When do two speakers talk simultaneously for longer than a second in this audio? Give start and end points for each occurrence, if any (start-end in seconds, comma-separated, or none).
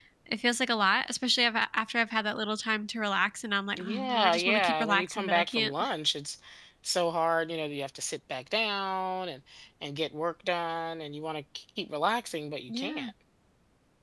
3.8-5.7